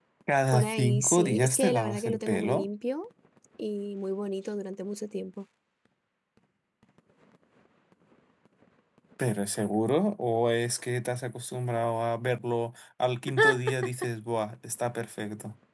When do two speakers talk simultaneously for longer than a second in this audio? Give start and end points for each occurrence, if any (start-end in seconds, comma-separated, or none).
0.5-2.7